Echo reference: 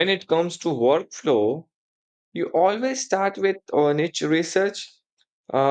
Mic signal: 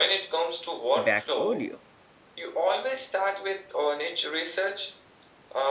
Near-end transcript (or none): back earlier.